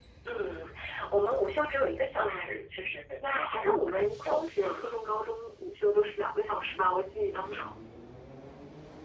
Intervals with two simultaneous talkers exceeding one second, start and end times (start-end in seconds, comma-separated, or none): 3.2-4.9